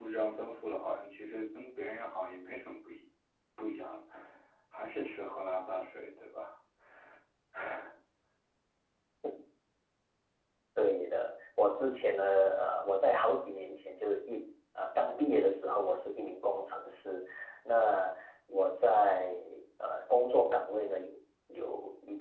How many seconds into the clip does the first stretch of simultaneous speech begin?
none

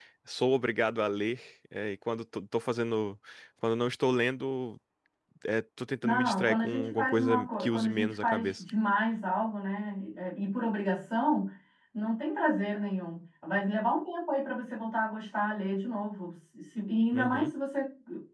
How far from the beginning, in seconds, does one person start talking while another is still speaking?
6.0 s

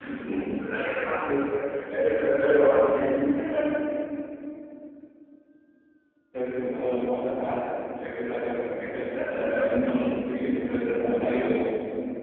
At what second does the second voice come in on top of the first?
9.0 s

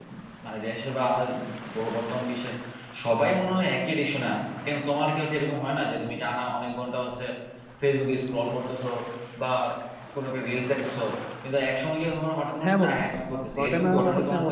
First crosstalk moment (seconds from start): 12.6 s

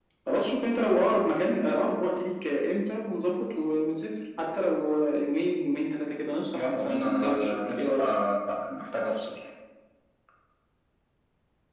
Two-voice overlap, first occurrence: 6.5 s

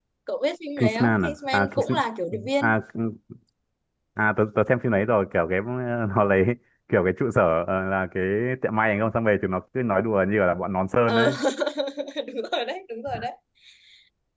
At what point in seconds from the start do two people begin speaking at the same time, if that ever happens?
0.8 s

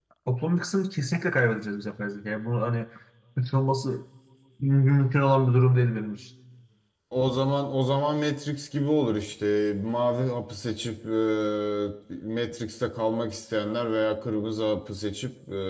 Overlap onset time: none

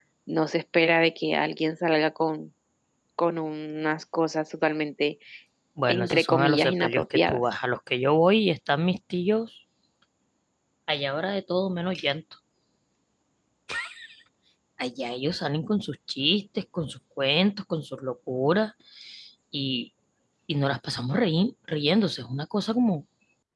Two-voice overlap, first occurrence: 5.9 s

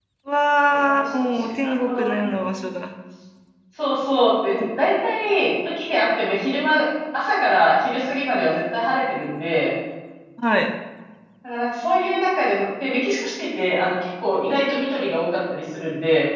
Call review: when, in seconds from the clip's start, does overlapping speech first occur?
0.7 s

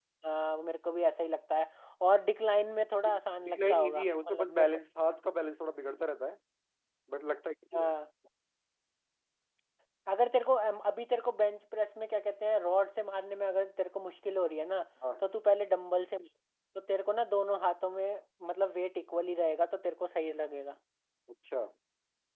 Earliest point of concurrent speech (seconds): 3.4 s

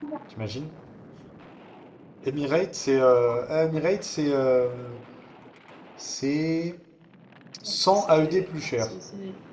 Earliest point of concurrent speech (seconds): 7.7 s

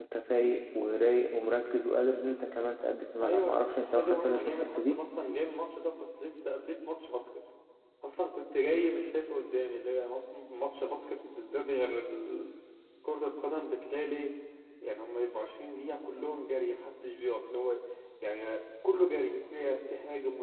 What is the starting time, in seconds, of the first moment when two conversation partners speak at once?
3.2 s

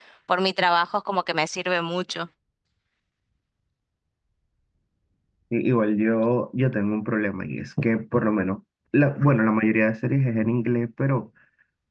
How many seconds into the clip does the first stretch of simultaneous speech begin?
none

